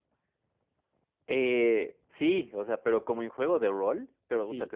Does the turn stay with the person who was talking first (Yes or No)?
Yes